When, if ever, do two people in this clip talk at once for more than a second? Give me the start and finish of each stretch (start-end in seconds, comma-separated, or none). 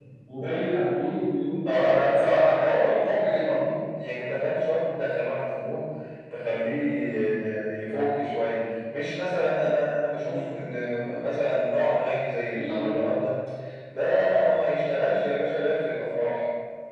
1.6-3.6